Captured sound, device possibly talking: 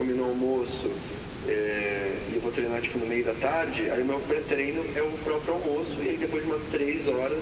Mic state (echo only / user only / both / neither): echo only